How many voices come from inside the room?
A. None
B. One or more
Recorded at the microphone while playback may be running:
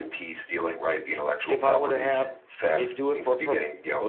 B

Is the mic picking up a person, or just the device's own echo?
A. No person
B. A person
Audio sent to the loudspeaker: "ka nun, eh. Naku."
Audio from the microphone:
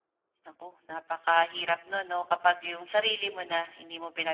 B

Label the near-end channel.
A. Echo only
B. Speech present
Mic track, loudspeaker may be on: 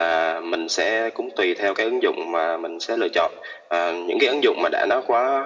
A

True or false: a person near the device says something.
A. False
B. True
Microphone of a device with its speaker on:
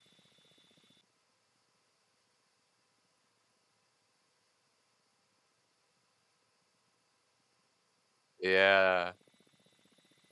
B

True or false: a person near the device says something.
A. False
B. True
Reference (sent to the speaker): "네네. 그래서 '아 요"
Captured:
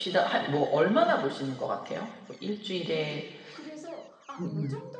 B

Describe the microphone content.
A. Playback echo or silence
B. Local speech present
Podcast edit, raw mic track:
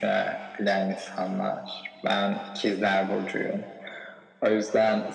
A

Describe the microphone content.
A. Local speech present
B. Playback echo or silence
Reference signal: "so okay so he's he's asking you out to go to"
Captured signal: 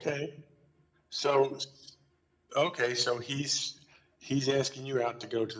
B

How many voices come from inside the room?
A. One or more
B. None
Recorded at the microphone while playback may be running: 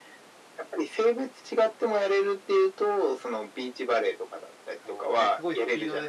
A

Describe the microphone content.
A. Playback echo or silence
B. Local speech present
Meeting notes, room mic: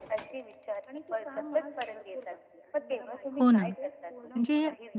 B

